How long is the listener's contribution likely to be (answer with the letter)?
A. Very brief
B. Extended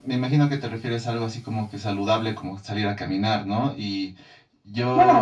B